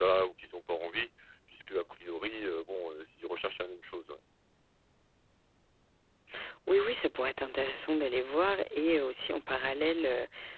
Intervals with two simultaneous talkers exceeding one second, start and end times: none

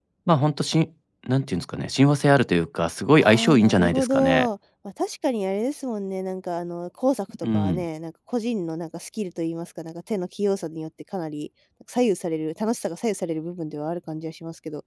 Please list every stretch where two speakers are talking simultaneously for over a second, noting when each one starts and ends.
3.2-4.5

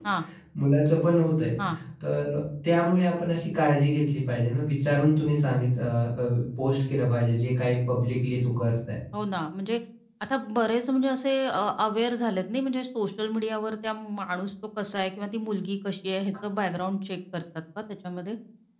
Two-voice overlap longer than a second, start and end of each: none

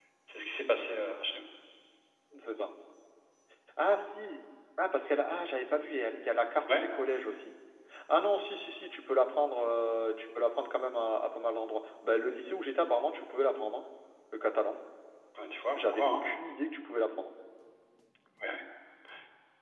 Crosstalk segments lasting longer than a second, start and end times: none

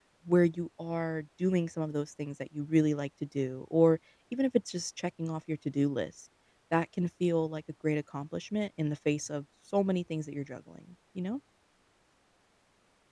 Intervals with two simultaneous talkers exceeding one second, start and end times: none

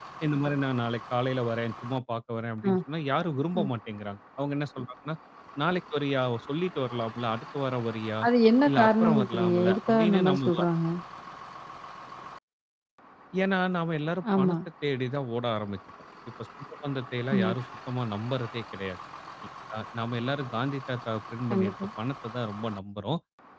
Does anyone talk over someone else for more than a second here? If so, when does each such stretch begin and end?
8.7-10.5

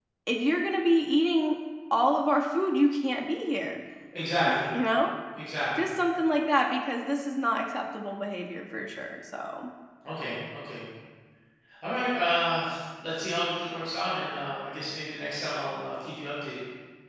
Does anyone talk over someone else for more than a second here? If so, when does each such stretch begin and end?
none

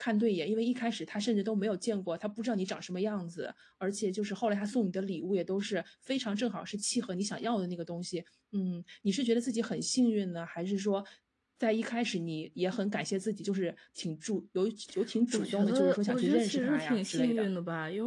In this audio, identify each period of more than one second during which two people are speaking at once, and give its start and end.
15.3-17.5

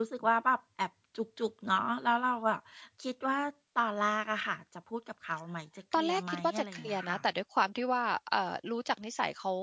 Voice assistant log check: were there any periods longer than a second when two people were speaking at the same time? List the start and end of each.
6.0-7.2

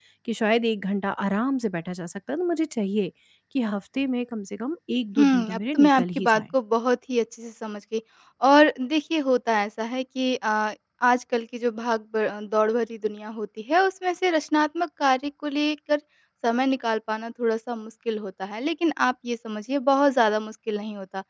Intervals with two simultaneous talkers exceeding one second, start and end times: 5.2-6.4

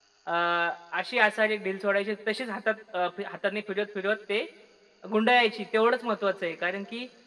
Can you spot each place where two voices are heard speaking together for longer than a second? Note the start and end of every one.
none

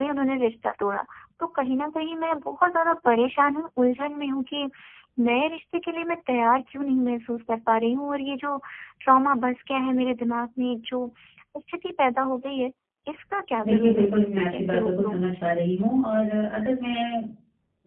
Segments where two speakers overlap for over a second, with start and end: 13.6-15.2

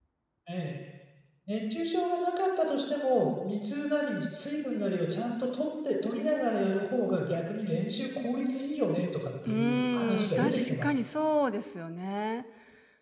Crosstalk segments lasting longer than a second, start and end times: 9.5-11.0

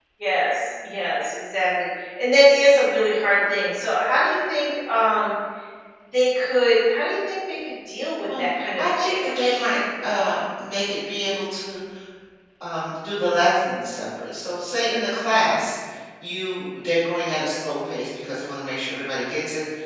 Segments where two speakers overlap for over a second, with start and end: 8.4-9.6

